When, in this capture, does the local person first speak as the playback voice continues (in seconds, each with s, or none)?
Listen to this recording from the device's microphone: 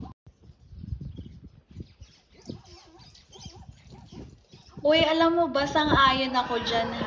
4.8 s